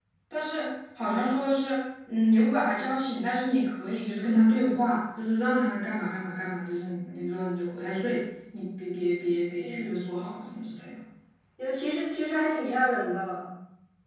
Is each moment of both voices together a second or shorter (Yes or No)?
Yes